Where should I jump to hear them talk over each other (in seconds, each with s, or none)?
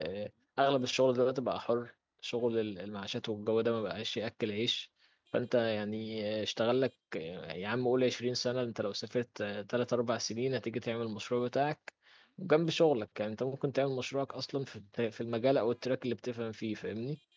none